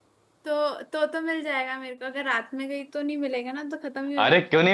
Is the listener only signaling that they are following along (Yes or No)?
No